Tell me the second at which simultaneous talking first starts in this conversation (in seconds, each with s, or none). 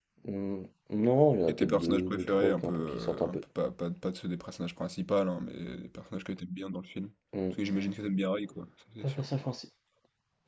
1.5 s